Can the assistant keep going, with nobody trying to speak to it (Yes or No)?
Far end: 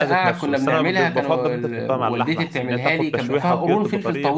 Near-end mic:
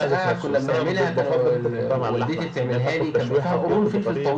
Yes